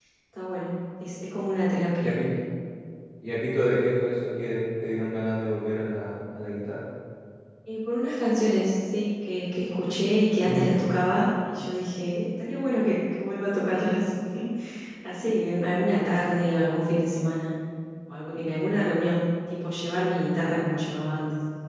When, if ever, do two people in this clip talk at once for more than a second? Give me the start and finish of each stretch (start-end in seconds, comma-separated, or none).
none